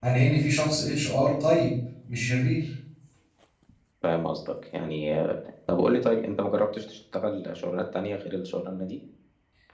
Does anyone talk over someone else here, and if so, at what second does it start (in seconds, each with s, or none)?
none